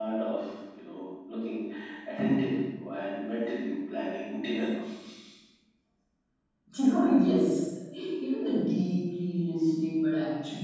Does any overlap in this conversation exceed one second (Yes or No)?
No